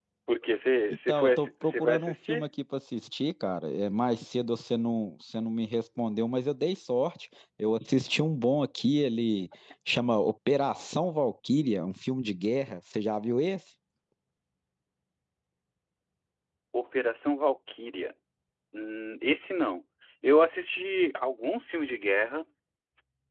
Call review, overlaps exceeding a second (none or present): present